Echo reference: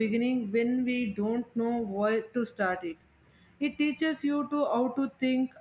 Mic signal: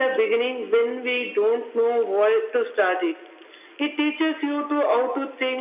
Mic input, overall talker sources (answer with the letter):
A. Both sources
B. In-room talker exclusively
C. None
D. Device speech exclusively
D